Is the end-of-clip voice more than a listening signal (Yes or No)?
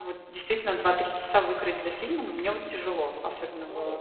Yes